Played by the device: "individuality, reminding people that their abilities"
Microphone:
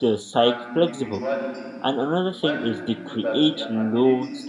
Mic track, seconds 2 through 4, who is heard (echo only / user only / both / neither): both